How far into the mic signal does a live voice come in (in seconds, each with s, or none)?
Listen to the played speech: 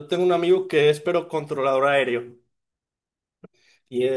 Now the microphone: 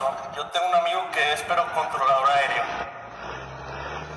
none